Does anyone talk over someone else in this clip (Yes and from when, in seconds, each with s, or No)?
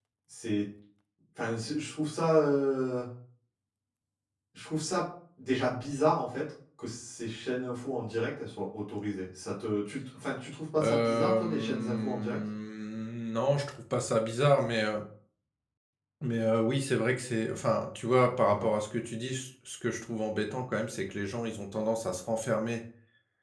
Yes, from 10.8 s